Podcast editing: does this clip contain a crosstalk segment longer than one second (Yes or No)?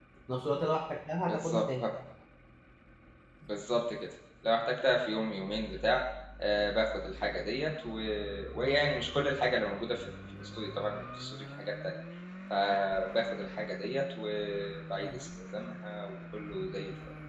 No